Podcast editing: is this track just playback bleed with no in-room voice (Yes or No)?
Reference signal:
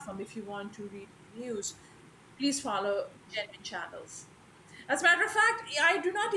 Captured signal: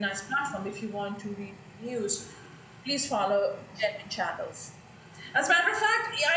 Yes